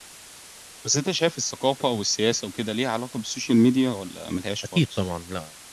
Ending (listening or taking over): taking over